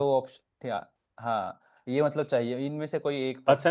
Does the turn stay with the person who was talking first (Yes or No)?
No